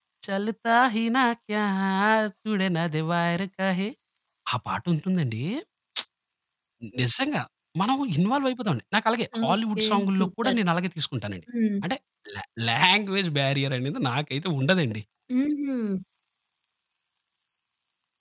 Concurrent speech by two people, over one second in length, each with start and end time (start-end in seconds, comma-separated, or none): 9.4-10.6